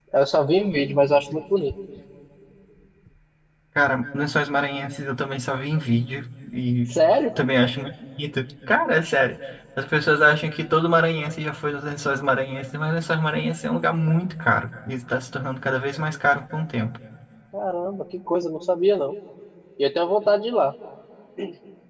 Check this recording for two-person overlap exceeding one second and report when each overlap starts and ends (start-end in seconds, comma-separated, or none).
none